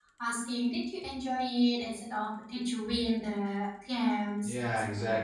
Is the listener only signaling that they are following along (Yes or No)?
No